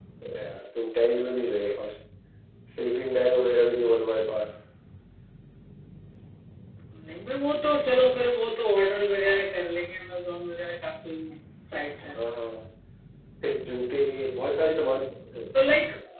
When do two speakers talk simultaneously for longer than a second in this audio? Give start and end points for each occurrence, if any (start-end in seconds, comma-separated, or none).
none